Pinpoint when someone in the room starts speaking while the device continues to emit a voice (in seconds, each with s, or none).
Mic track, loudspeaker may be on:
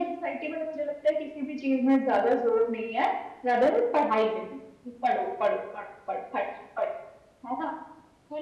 none